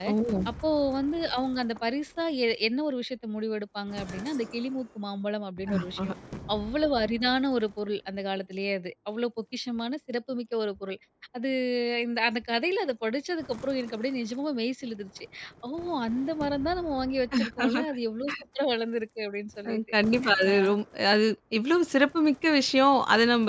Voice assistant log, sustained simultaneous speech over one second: none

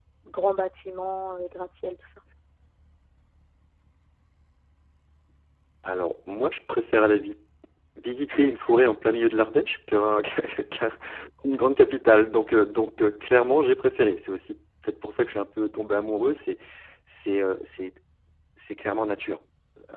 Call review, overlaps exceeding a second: none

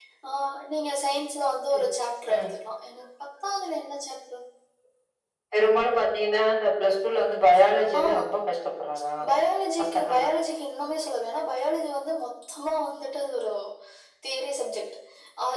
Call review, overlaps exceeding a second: none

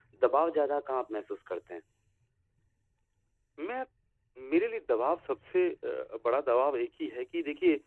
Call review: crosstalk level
none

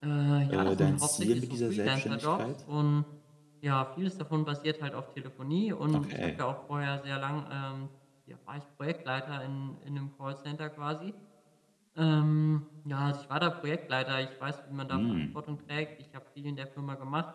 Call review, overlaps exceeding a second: present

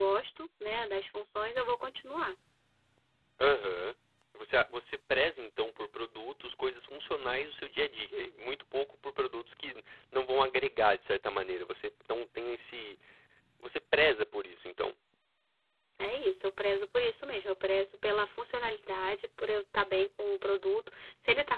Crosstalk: none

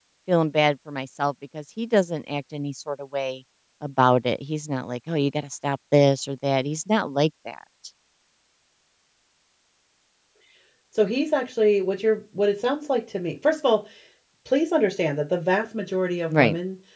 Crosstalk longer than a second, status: none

